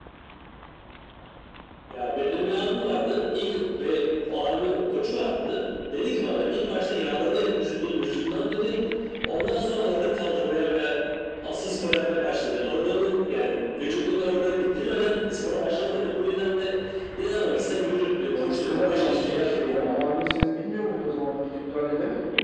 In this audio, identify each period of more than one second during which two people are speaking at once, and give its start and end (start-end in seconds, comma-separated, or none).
18.3-19.9